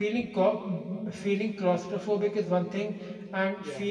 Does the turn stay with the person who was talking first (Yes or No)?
Yes